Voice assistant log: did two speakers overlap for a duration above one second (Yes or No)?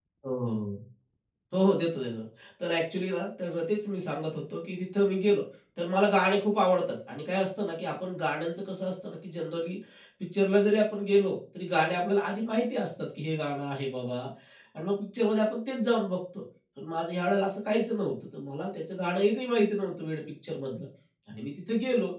No